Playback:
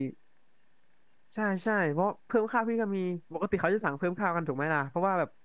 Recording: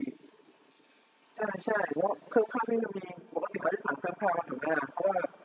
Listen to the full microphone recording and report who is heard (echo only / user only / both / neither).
echo only